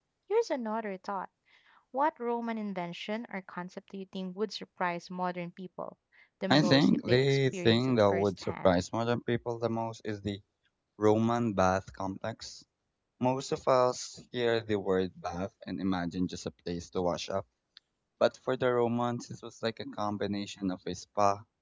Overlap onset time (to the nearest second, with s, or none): 7 s